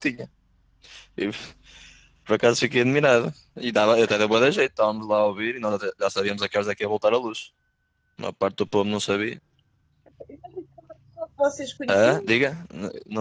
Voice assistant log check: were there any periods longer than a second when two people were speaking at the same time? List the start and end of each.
none

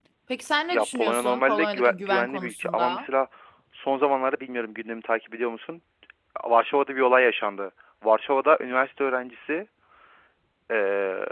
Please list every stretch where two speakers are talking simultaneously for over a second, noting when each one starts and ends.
0.7-3.1

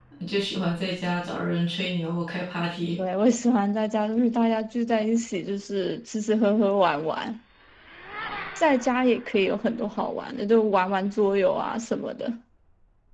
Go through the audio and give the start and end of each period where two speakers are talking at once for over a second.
none

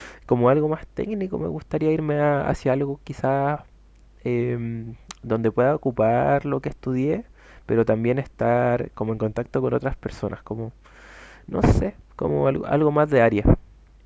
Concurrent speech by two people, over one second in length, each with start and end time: none

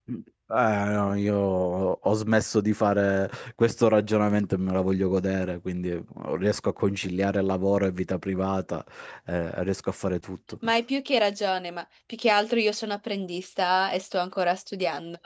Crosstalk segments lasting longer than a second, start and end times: none

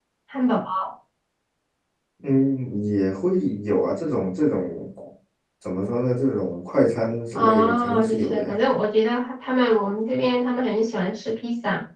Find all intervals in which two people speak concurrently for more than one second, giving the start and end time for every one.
7.3-8.6

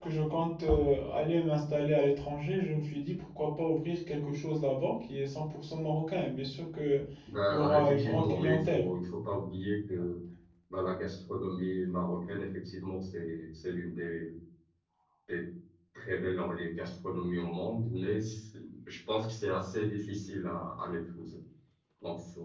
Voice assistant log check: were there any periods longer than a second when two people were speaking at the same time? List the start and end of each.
7.5-8.8

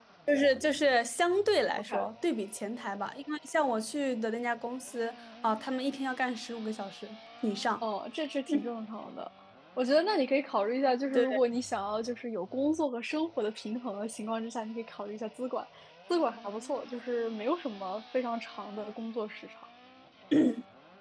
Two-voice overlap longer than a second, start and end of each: none

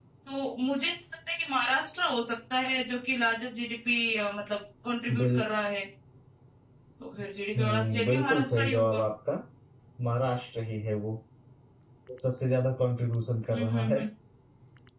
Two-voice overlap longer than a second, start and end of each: 7.6-9.0

